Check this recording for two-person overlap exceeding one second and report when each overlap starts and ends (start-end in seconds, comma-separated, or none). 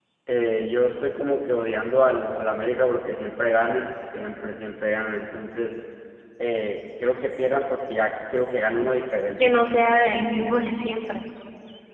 none